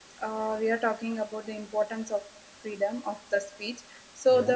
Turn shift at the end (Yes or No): No